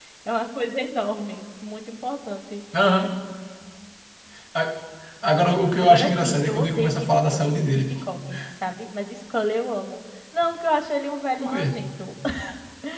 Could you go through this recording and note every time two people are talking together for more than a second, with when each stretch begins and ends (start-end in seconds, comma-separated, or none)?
5.8-7.8